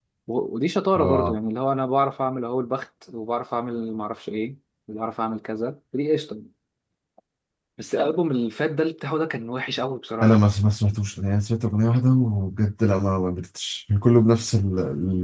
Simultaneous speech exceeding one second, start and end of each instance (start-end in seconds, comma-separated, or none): none